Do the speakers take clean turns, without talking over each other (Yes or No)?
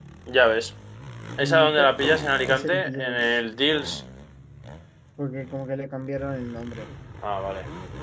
No